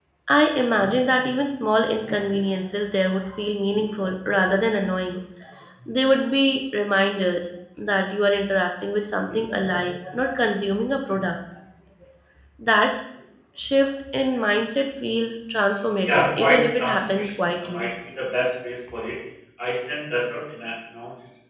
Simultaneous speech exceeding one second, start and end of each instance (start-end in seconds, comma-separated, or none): 16.0-17.9